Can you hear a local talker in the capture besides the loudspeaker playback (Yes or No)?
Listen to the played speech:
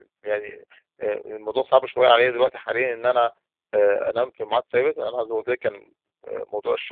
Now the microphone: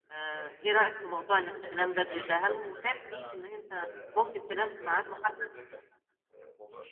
Yes